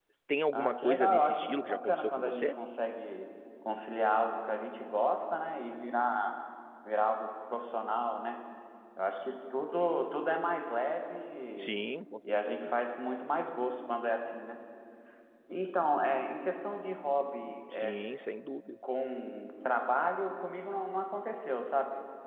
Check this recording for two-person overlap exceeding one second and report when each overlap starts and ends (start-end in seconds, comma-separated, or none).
0.5-2.5